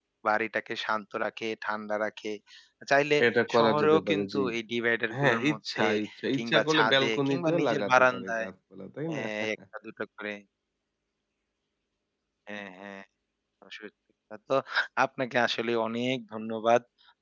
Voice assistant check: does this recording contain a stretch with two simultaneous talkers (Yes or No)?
Yes